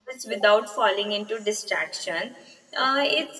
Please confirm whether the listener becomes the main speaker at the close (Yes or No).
No